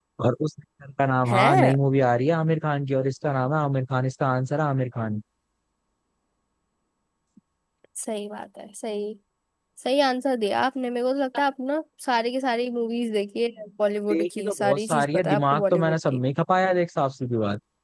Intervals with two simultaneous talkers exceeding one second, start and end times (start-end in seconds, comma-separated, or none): 14.1-16.2